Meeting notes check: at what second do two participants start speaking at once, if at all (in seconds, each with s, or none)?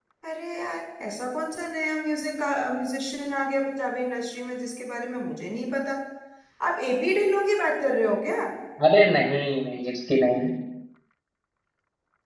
none